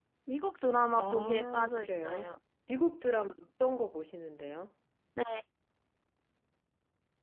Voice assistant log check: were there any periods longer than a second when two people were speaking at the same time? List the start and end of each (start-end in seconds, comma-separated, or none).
1.0-2.3